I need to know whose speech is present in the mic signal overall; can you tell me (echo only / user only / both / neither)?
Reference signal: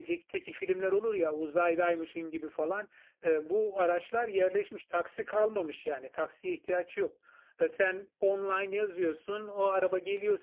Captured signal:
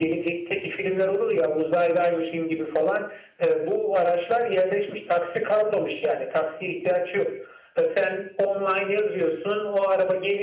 echo only